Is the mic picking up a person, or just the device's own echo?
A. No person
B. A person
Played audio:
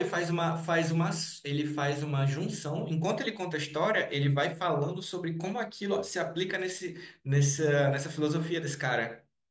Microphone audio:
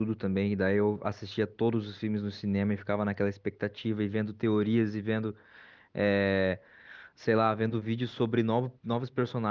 B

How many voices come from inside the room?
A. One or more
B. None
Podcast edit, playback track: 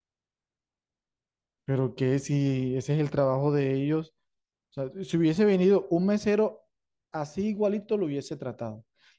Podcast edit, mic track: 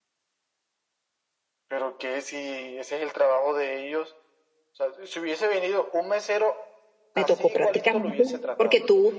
A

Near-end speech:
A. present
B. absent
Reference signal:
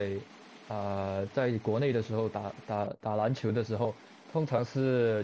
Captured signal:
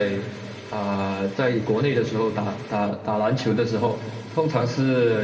B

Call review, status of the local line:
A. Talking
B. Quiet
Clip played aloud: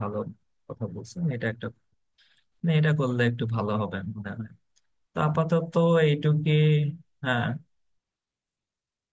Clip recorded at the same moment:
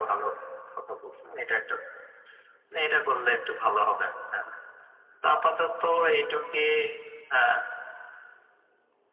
B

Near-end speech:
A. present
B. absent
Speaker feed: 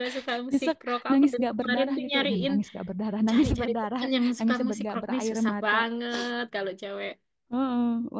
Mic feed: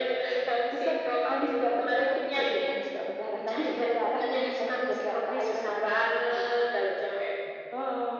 B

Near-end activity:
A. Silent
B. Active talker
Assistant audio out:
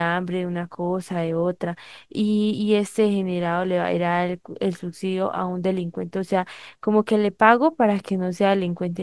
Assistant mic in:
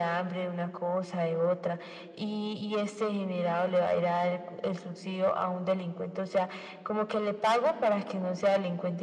A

